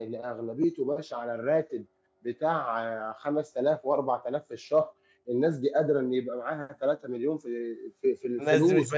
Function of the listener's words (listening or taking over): taking over